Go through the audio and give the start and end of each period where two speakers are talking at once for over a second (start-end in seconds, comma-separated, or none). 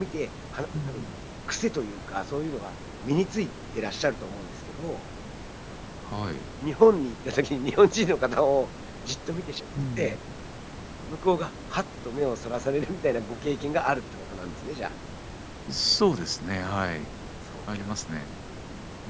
none